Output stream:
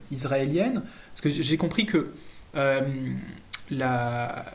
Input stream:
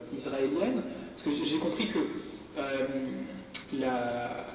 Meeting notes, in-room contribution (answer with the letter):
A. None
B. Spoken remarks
A